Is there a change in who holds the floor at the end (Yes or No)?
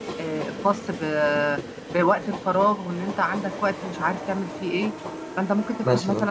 No